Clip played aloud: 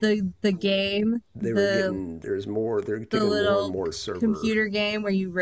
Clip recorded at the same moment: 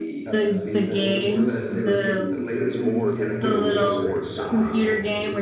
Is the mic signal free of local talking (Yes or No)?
No